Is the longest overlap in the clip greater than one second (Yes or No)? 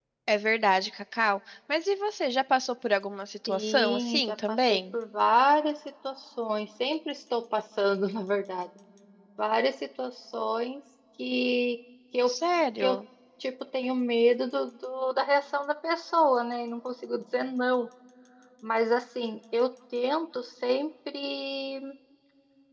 Yes